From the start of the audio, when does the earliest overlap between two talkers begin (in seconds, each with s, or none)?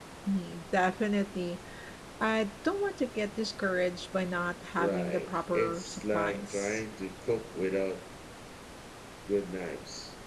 4.8 s